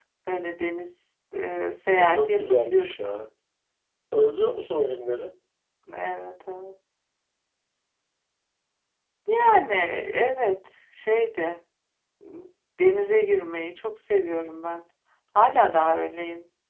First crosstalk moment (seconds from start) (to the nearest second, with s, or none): 2 s